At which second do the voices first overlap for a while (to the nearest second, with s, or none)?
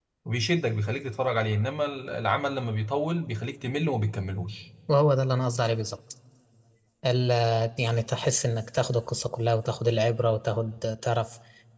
none